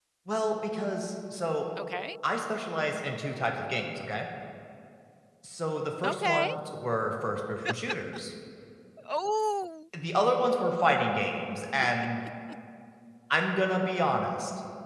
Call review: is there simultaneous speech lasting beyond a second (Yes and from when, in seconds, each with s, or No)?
No